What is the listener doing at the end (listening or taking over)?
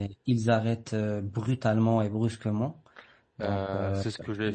taking over